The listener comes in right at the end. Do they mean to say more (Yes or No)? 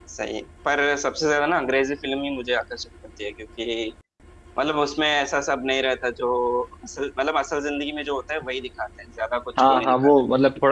Yes